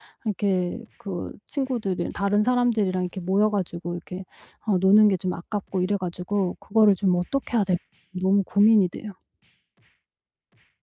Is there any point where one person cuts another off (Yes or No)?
No